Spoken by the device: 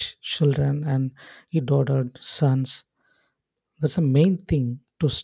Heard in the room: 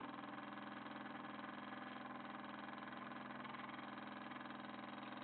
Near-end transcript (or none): none